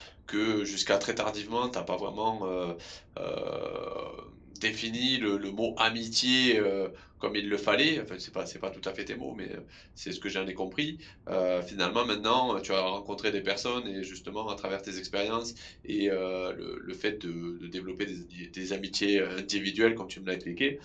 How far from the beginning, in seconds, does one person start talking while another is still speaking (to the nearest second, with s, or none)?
none